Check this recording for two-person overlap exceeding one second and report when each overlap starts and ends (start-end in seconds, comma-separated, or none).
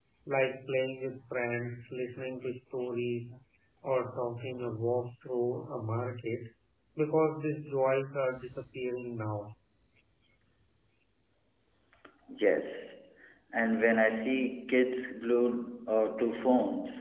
none